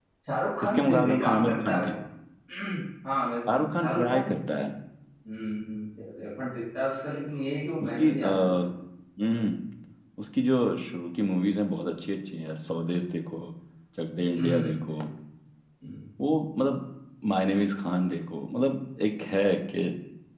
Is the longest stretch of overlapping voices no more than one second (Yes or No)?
No